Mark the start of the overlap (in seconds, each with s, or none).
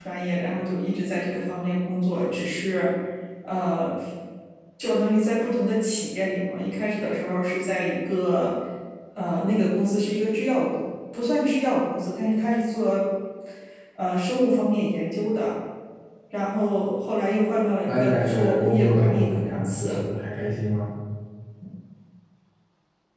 17.8 s